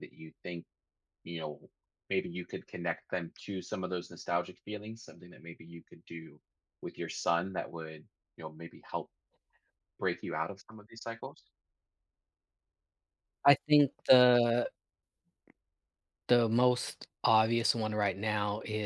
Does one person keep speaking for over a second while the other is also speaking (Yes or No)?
No